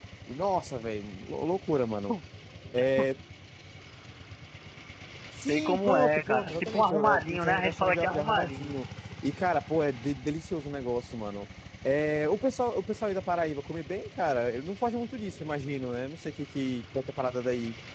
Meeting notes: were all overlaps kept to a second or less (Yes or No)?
No